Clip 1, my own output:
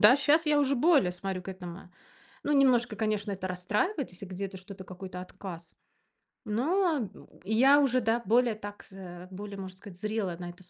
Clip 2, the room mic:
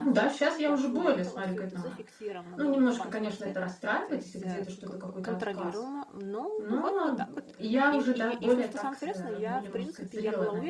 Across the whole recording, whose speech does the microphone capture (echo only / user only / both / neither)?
both